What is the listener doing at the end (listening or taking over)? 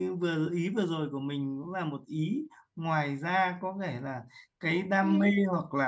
listening